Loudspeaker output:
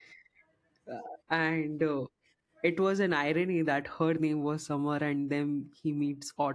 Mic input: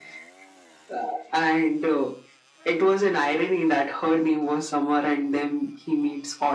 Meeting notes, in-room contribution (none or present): none